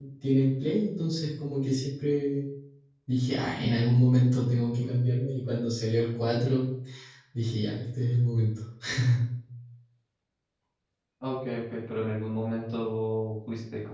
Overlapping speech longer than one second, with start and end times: none

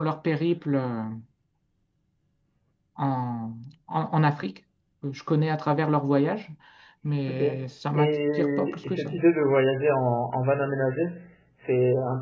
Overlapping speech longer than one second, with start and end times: 8.0-9.2

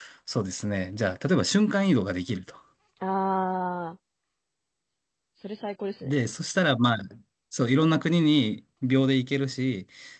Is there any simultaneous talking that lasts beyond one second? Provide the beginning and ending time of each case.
none

